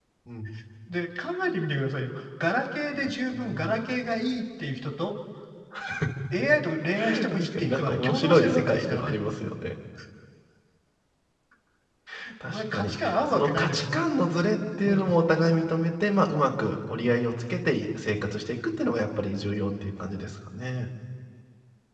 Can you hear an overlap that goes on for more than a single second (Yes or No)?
Yes